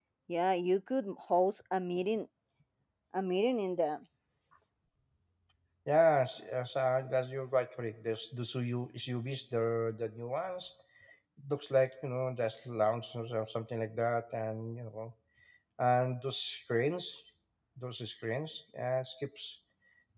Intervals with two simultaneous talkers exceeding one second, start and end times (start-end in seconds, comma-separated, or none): none